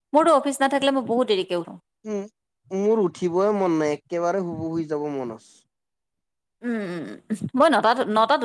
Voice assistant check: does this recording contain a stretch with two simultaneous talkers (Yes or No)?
No